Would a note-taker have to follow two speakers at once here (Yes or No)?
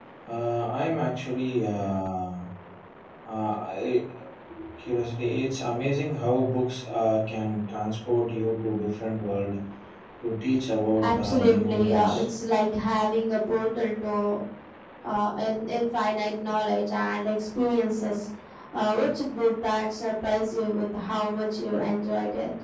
Yes